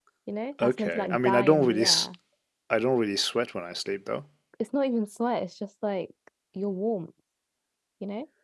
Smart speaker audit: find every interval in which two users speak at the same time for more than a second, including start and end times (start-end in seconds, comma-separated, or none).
0.6-2.1